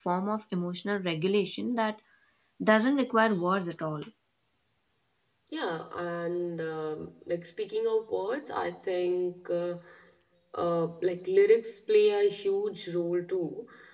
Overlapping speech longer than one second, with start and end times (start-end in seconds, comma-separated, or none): none